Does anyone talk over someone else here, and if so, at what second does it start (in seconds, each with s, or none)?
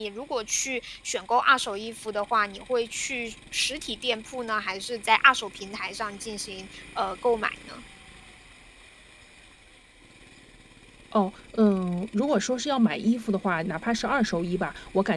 none